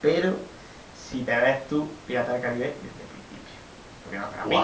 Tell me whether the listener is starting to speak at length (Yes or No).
Yes